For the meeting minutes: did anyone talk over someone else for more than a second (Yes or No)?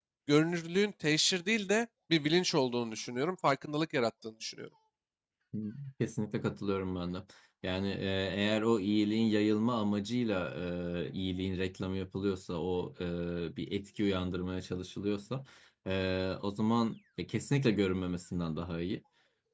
No